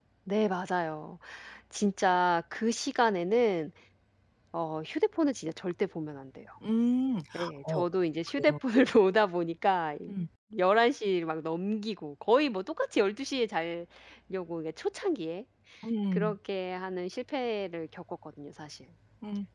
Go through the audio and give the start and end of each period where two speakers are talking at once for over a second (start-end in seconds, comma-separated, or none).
none